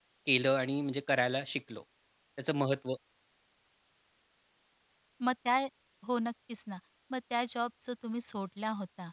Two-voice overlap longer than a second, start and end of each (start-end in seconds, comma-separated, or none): none